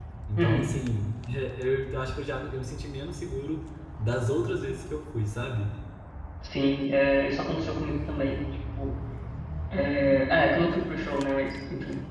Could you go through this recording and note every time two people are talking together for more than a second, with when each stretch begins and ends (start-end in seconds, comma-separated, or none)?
none